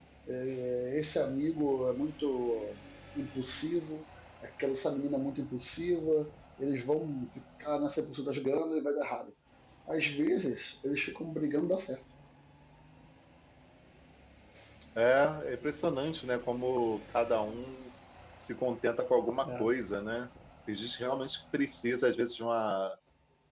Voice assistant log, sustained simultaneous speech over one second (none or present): none